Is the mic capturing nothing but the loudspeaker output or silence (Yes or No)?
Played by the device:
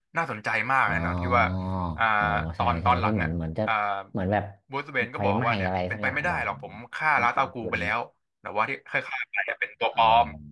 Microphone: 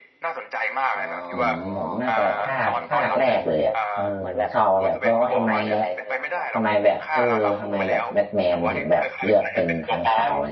No